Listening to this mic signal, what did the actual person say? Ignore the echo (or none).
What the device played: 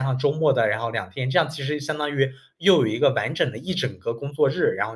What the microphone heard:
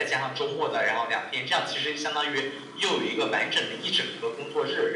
none